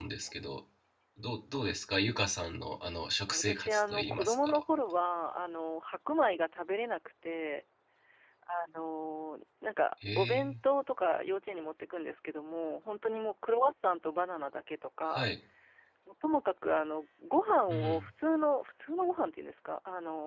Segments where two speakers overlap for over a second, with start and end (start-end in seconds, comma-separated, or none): 3.3-4.6